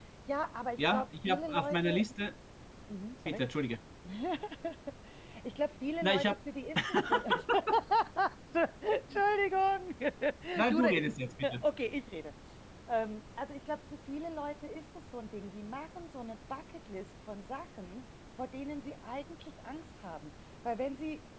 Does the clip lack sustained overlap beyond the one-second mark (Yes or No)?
No